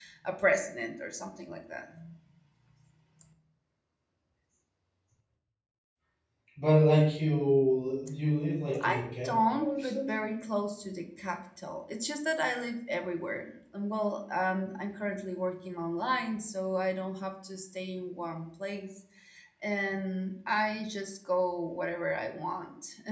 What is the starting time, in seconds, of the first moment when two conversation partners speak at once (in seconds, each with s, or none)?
8.7 s